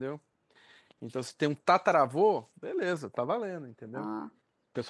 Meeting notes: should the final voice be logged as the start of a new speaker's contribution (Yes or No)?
No